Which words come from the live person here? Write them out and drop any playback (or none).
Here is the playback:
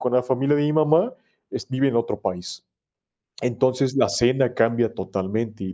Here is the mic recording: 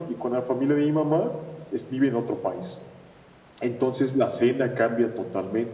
none